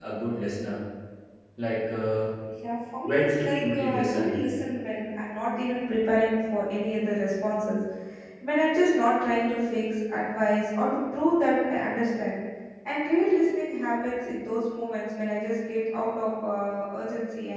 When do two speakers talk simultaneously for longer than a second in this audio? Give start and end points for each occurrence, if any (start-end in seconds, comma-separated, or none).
3.0-4.4